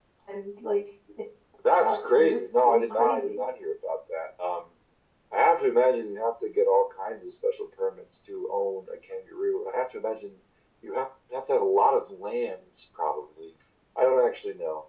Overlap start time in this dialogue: 1.6 s

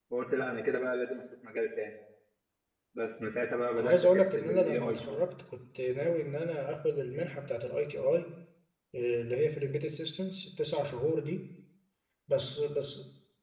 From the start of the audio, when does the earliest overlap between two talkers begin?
3.8 s

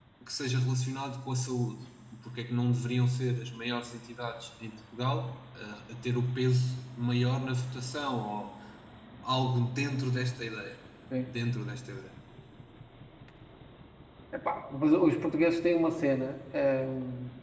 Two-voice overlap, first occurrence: none

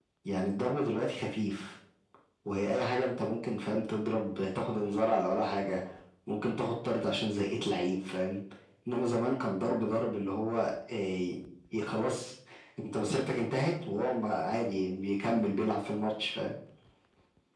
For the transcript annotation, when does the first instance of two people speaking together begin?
none

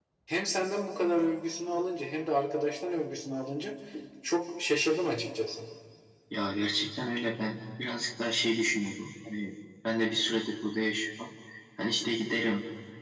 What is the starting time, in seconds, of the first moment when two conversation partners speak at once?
none

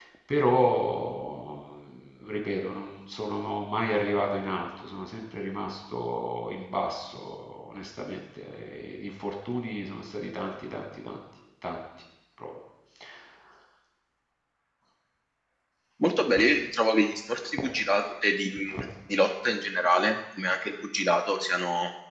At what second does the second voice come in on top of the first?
none

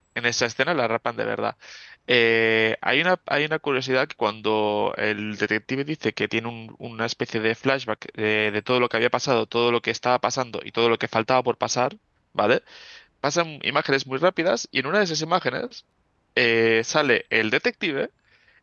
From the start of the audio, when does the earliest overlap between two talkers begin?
none

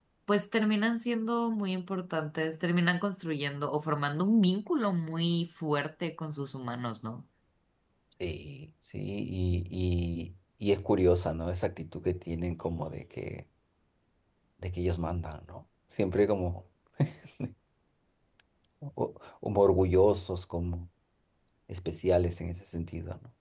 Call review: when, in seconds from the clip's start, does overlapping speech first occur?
none

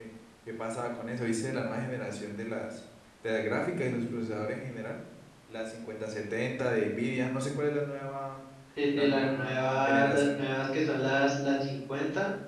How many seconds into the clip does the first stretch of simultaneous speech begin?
8.9 s

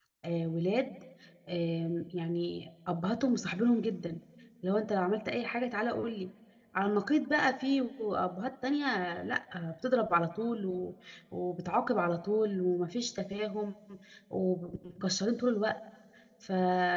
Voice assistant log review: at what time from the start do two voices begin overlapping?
none

